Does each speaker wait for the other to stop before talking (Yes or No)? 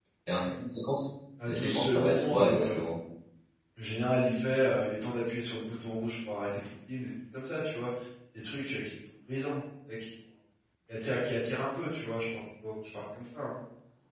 No